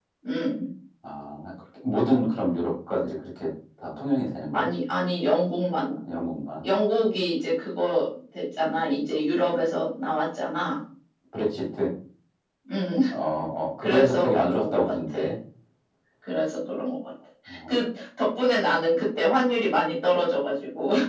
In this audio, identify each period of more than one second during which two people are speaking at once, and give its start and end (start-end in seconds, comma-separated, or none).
13.8-15.2